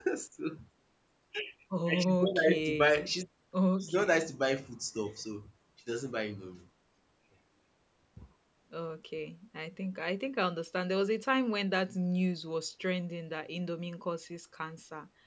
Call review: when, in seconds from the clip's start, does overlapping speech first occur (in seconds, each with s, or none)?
1.9 s